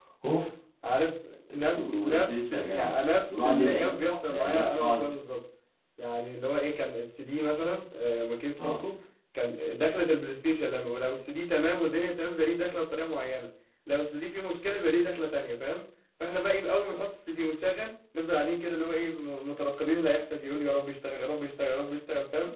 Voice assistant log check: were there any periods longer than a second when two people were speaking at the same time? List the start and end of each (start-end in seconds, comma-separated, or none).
1.8-5.1